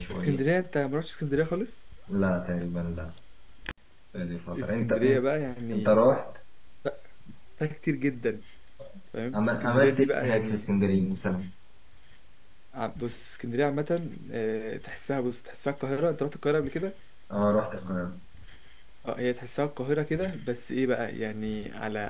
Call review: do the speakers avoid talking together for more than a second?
No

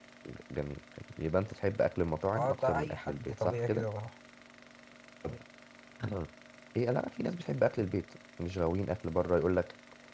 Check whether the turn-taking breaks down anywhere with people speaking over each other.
Yes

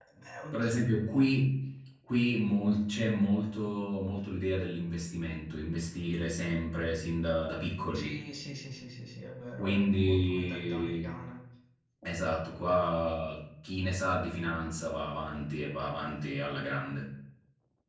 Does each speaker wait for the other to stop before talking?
No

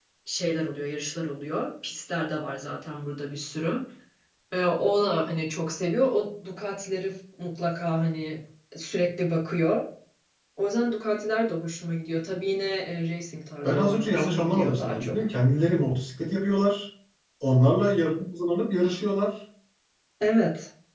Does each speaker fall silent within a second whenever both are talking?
No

